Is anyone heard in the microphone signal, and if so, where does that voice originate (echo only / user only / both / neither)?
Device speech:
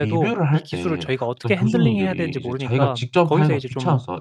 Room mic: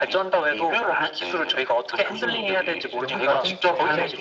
both